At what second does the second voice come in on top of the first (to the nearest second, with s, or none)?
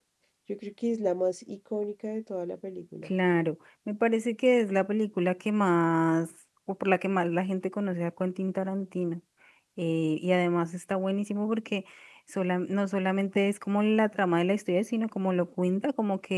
none